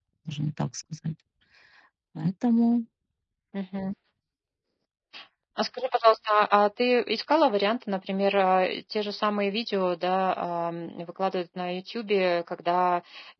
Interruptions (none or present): none